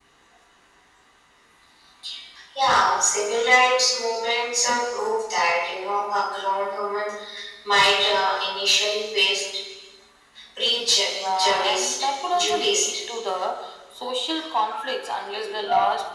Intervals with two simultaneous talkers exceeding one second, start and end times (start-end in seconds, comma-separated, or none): 11.2-12.9